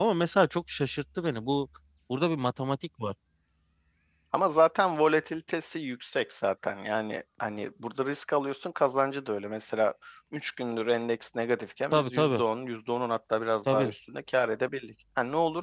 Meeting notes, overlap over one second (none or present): none